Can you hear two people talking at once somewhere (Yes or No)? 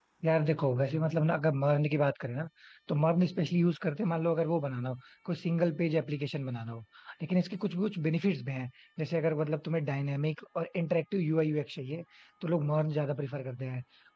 No